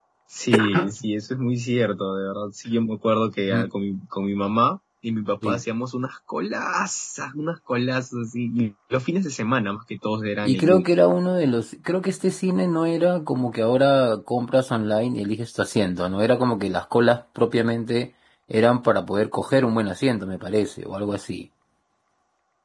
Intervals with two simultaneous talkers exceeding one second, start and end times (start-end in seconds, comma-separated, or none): none